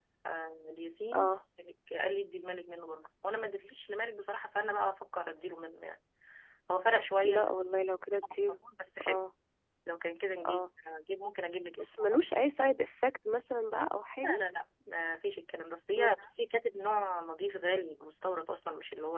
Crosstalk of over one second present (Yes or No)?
No